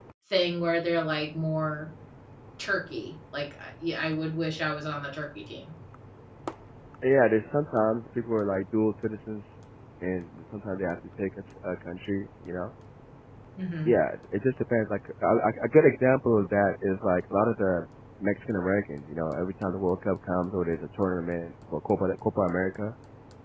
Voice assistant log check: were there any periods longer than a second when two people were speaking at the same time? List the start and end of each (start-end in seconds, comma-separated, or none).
none